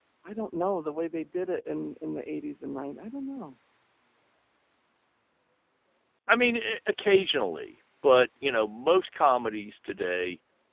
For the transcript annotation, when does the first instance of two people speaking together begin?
none

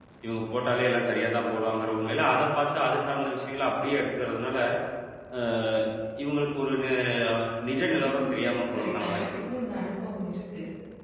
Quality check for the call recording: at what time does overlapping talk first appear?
8.1 s

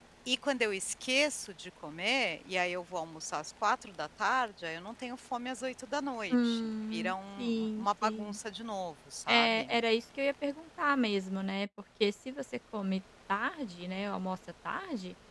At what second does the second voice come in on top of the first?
6.3 s

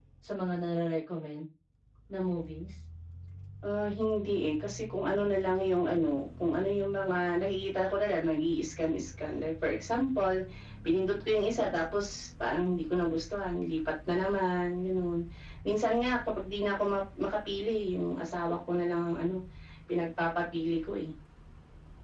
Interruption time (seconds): none

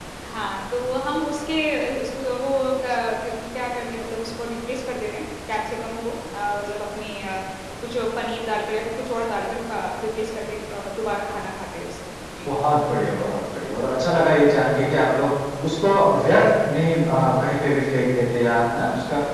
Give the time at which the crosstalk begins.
none

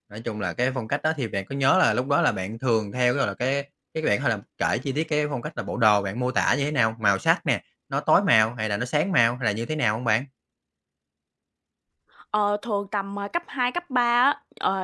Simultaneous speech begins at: none

